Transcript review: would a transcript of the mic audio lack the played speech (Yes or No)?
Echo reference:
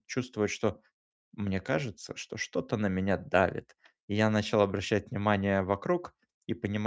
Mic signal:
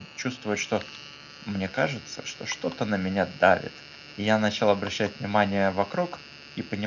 No